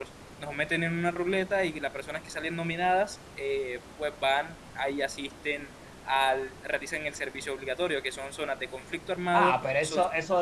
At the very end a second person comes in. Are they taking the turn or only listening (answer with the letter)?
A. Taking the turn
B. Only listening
A